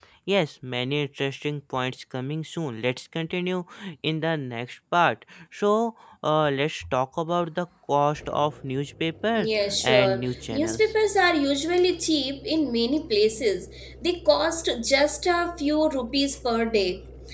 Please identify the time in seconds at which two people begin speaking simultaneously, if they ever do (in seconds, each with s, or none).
9.4 s